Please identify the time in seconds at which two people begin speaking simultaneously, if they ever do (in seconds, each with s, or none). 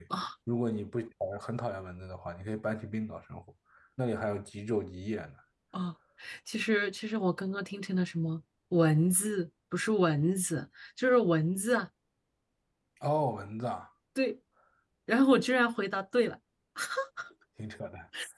none